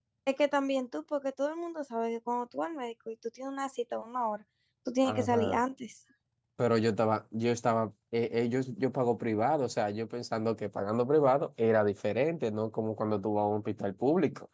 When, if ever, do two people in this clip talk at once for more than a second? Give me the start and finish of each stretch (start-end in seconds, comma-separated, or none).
none